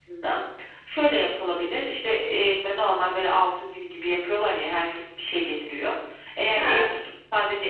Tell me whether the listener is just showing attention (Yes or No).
Yes